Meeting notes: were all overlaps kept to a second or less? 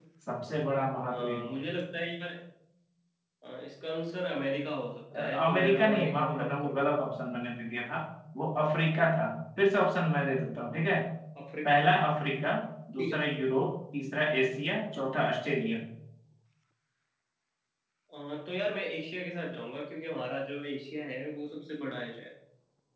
No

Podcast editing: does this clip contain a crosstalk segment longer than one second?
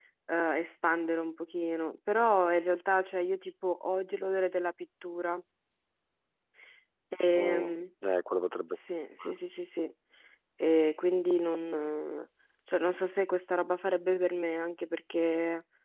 No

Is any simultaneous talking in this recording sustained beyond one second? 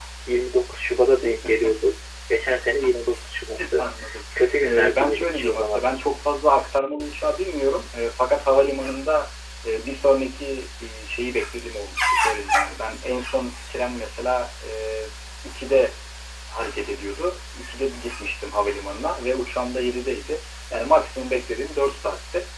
Yes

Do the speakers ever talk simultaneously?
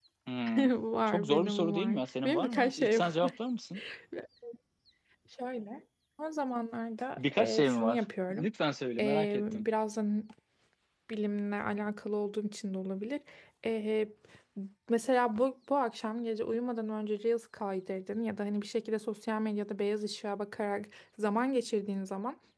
Yes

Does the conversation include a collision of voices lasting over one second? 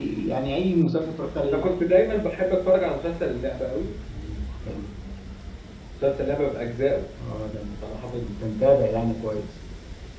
No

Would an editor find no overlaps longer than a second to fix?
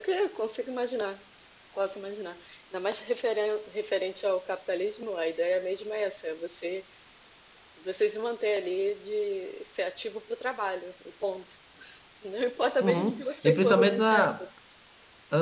No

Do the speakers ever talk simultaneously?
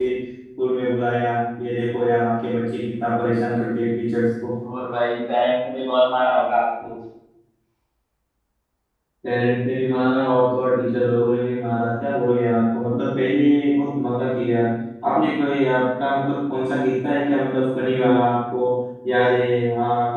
No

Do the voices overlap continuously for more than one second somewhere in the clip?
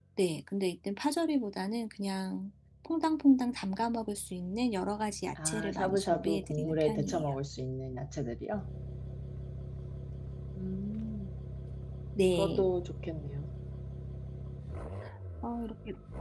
Yes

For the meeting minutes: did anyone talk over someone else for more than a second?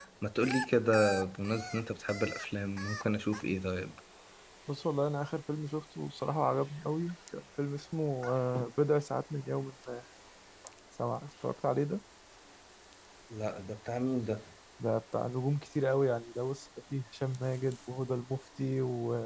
No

